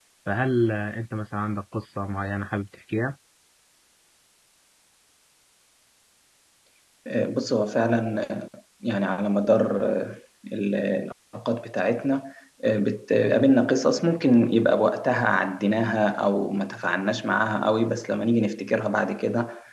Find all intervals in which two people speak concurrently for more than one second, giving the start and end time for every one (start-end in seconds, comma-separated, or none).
none